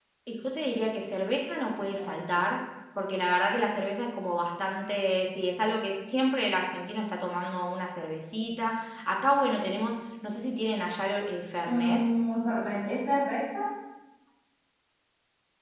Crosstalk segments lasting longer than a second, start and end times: none

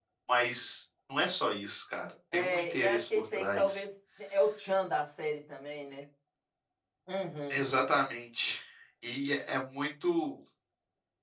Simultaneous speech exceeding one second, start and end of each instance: 2.3-3.8

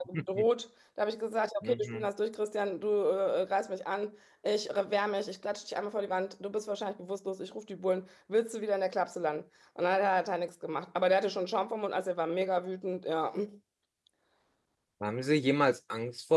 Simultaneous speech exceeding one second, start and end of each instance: none

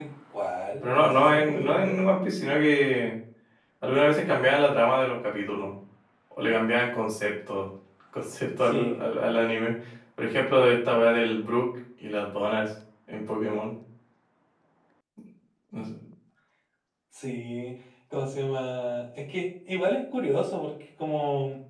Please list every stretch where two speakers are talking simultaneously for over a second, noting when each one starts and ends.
0.8-2.0

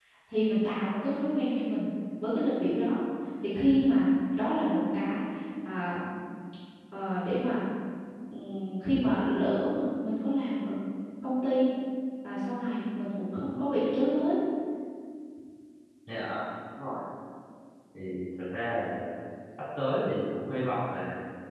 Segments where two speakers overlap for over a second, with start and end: none

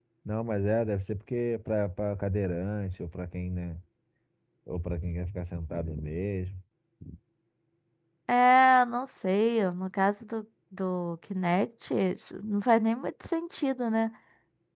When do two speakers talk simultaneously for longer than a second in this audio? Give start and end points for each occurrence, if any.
none

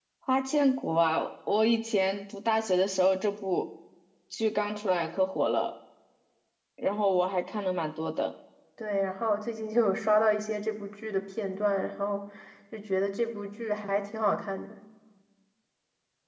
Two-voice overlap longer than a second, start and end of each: none

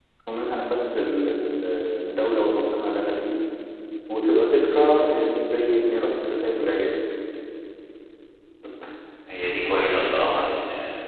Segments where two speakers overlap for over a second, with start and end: none

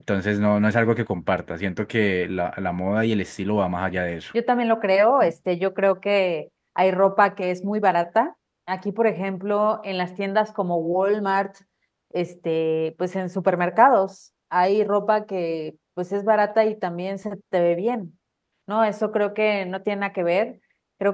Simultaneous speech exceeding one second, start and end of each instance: none

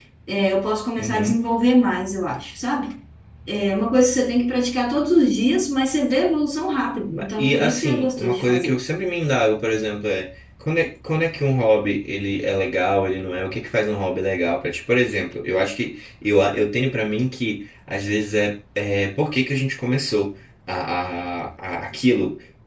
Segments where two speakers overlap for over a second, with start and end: 7.1-8.8

